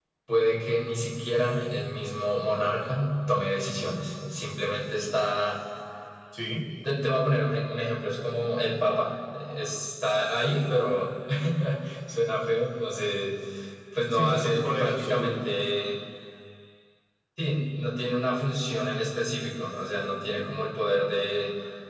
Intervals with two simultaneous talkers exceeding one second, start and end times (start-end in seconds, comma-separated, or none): 14.1-15.3